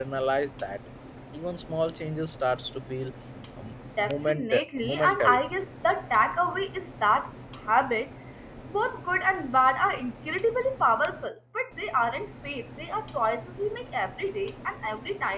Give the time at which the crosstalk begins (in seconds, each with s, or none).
4.0 s